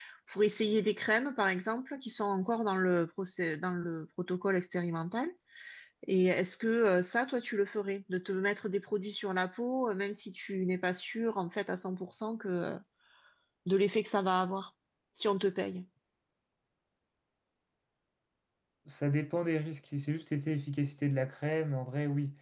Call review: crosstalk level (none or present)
none